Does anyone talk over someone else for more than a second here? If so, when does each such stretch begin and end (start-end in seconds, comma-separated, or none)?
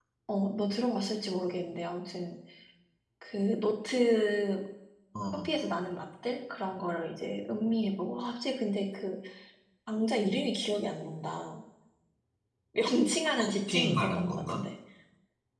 13.4-14.6